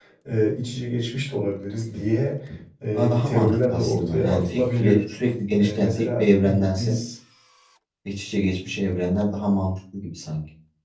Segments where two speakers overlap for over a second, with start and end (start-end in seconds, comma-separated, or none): 2.9-5.0, 5.6-7.0